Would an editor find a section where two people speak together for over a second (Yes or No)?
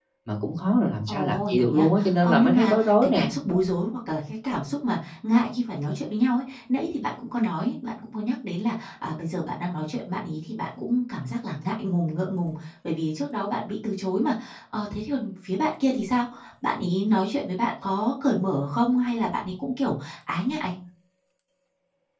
Yes